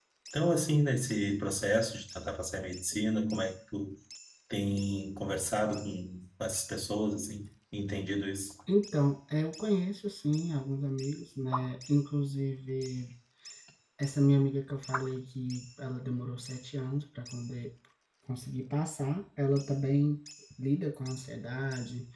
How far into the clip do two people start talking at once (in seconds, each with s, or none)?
none